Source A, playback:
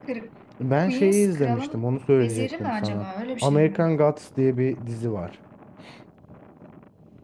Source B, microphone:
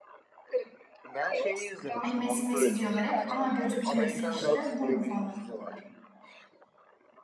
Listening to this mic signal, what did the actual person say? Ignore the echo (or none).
Hani Messi Messi diyorlar hep. Aha gözüktü Messi işte bu mu falan.